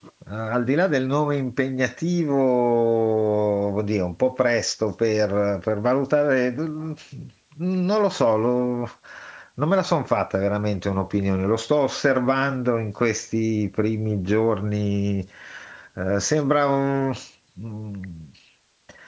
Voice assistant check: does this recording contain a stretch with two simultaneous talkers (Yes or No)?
No